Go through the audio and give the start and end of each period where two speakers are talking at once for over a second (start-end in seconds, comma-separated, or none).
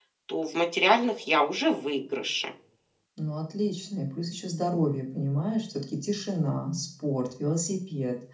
none